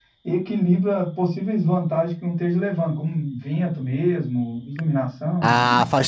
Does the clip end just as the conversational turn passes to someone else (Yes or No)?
Yes